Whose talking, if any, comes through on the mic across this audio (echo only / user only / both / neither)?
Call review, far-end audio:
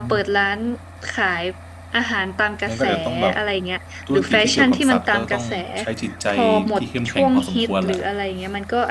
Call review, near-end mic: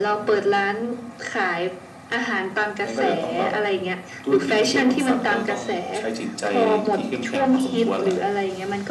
echo only